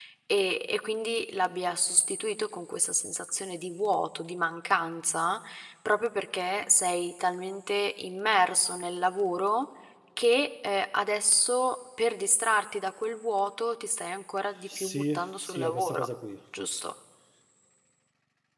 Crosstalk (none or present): present